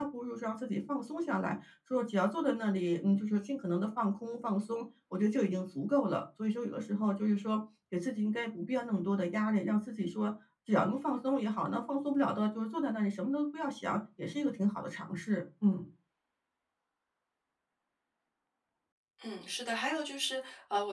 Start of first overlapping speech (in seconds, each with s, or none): none